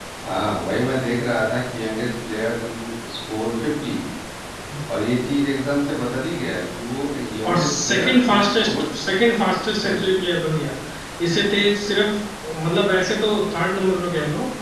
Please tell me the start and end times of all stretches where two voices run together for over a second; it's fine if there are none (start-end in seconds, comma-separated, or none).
7.5-8.7